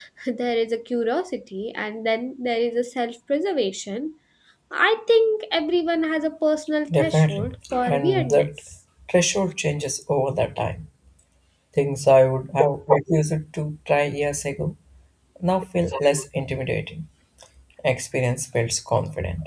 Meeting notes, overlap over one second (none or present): present